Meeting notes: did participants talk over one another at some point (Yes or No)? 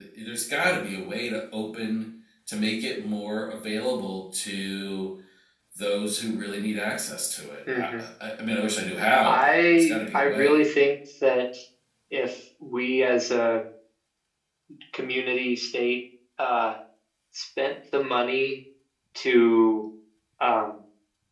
Yes